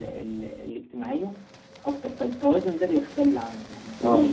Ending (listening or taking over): listening